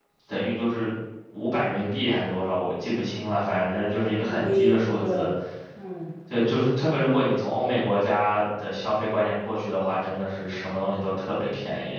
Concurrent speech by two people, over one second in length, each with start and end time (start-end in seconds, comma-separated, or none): 3.6-5.0